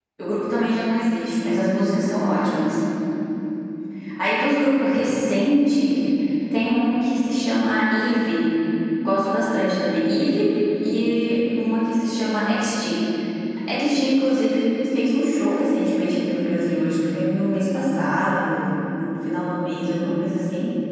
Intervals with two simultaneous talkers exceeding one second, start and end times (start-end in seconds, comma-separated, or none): none